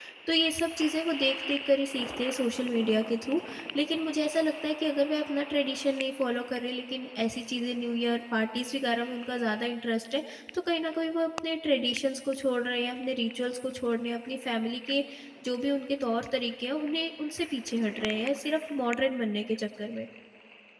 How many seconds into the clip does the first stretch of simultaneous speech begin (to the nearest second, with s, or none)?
none